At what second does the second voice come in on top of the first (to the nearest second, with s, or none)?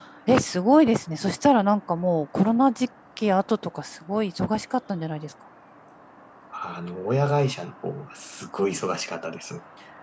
none